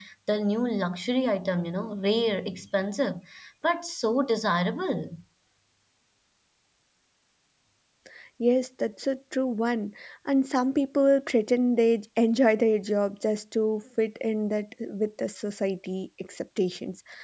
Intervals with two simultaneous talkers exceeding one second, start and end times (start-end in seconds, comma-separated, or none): none